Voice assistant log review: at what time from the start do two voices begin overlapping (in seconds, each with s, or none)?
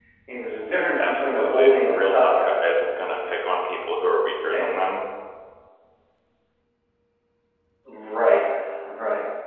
1.0 s